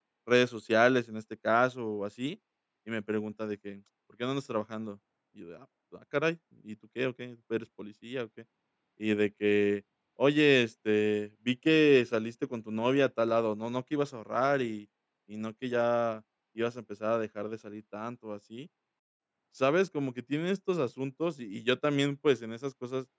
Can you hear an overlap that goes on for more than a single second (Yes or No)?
No